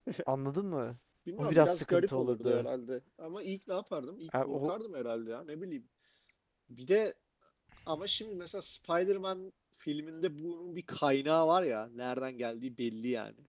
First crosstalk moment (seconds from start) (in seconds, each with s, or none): 1.4 s